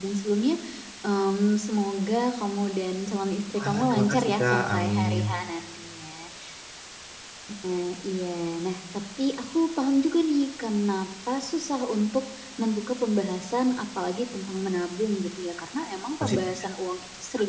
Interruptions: present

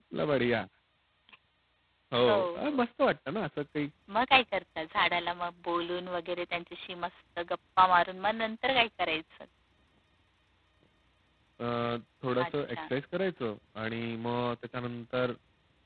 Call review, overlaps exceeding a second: none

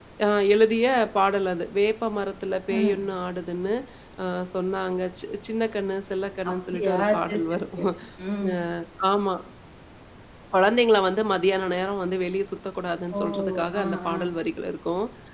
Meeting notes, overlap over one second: present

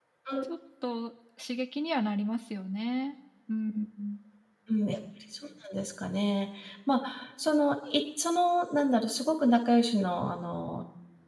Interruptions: none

